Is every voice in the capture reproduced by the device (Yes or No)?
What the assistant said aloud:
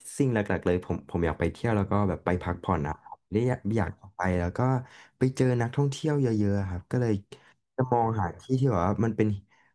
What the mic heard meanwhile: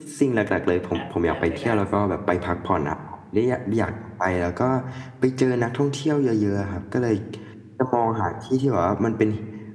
No